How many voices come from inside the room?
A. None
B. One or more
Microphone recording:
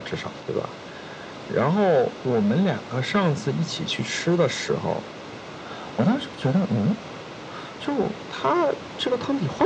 A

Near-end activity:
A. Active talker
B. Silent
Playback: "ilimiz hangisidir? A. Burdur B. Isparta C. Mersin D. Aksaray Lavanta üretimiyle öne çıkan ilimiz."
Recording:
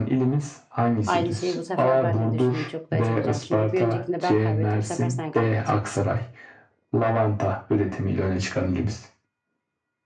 A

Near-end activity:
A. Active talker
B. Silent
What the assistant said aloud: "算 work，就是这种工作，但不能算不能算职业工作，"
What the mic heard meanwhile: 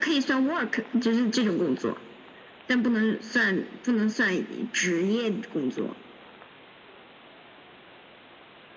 B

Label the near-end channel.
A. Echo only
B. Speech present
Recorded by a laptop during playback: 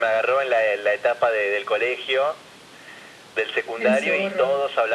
B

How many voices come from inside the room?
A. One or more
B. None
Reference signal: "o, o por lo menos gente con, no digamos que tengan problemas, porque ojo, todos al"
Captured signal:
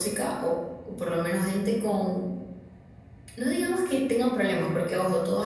B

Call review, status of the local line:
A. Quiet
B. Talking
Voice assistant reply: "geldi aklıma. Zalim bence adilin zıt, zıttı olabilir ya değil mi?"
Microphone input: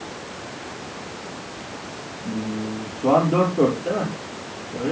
B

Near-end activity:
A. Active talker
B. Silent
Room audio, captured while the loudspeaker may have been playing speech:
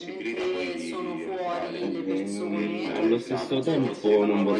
A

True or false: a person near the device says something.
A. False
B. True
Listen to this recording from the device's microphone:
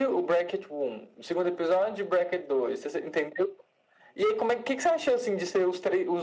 A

